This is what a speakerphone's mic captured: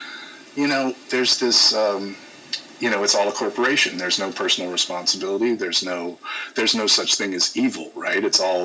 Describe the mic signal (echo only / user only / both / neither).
echo only